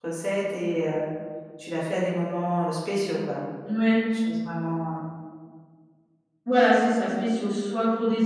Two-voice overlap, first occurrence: none

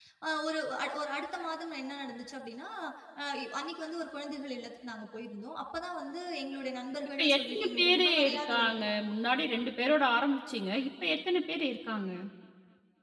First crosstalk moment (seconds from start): 7.2 s

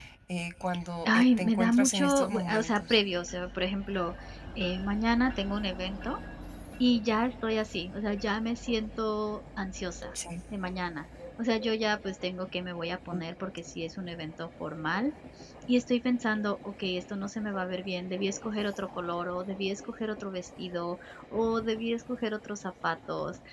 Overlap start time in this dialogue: 1.1 s

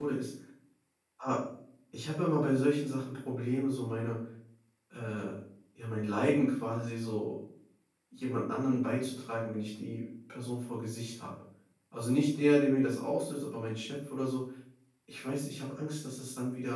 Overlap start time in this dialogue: none

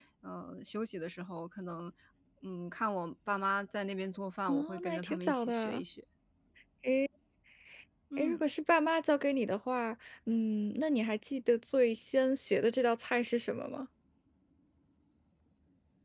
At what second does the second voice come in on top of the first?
4.5 s

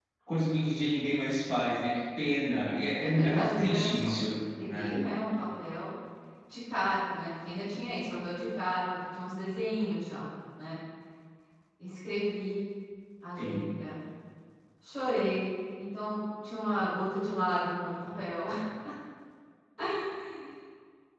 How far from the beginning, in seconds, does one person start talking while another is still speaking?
3.0 s

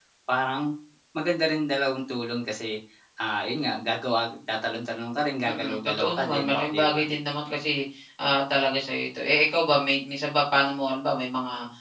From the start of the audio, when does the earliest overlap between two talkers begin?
5.4 s

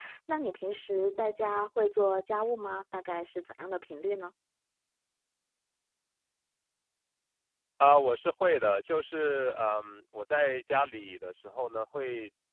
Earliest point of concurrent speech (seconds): none

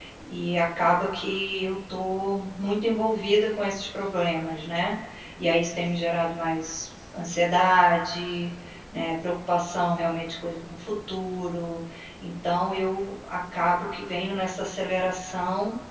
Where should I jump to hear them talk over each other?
none

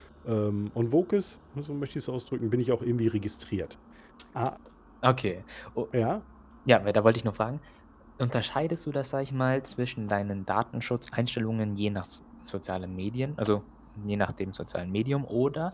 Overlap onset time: none

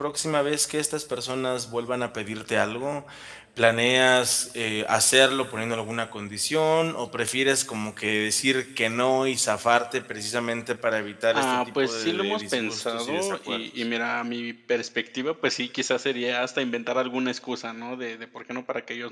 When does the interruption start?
11.3 s

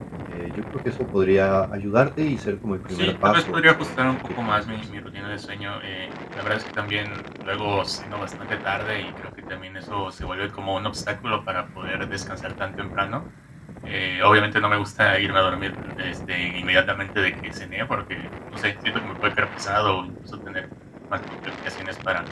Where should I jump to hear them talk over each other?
2.9 s

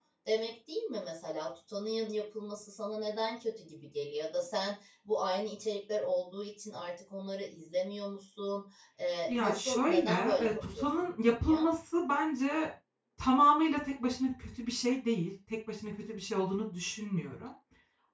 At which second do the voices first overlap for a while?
9.3 s

